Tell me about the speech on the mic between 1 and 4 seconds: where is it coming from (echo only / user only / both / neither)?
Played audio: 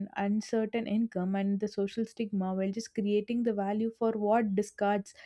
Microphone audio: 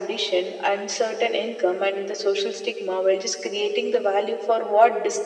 echo only